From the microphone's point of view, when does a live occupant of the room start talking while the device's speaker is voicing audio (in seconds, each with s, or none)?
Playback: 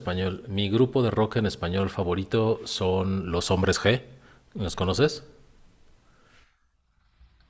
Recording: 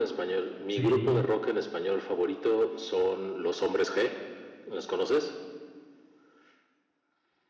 0.7 s